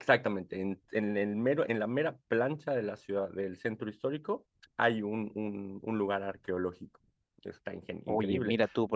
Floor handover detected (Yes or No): Yes